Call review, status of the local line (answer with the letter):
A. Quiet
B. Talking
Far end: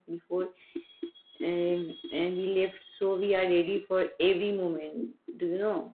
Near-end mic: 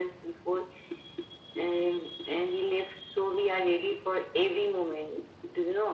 A